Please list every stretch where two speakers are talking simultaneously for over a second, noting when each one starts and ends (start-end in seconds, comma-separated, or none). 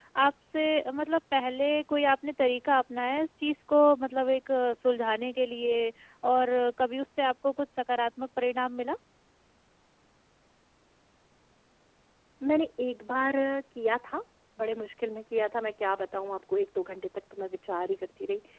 none